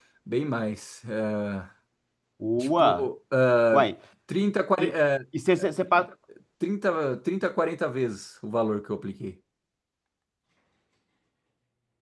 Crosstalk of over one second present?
No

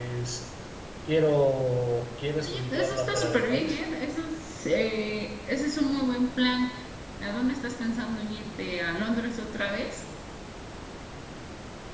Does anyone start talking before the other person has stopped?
Yes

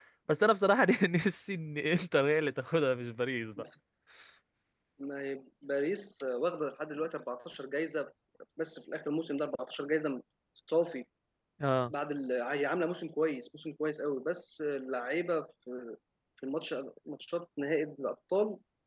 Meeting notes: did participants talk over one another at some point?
No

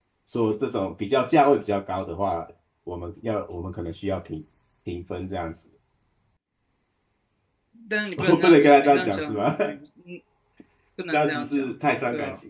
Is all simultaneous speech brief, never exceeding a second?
No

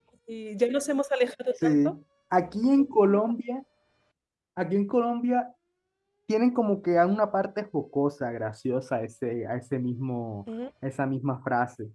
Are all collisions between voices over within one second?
Yes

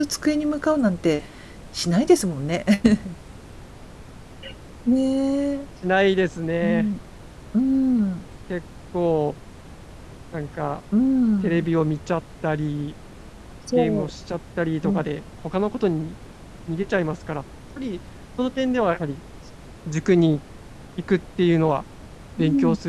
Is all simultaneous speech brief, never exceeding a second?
Yes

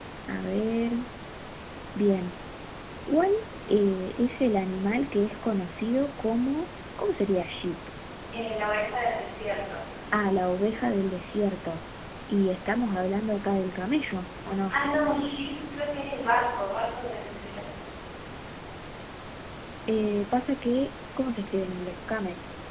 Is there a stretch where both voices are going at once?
No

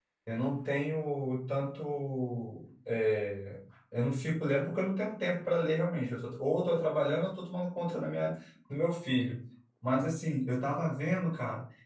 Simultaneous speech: No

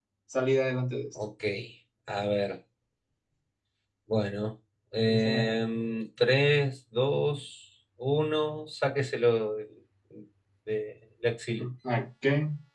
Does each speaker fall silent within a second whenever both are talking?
Yes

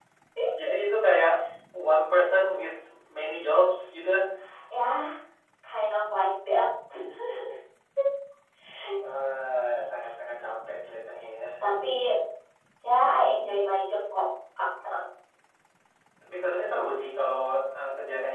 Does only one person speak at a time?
Yes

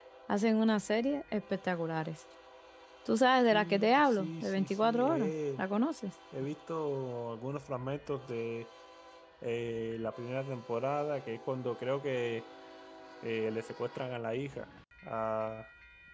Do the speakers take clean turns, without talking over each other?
No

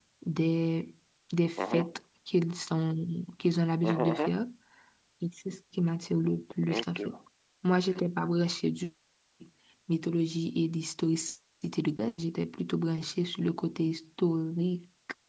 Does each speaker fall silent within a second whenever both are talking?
Yes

